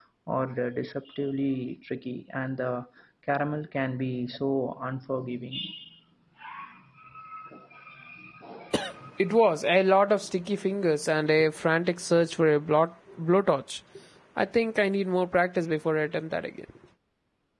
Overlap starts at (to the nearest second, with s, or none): none